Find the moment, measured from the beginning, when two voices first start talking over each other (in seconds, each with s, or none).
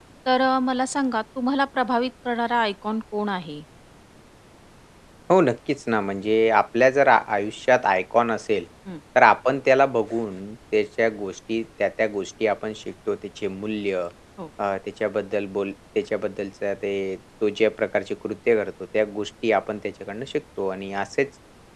none